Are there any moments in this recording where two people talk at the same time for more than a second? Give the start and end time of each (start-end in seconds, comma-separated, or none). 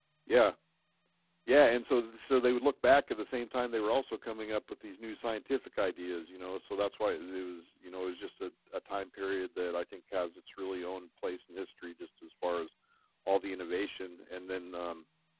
none